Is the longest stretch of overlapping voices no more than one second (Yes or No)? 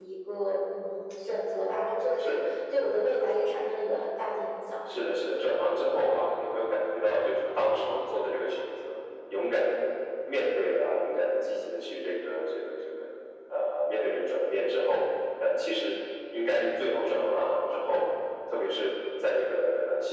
Yes